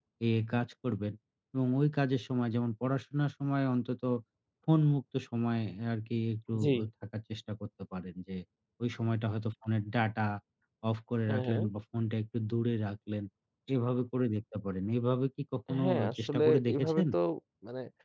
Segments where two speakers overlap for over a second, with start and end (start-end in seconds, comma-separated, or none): 15.8-17.0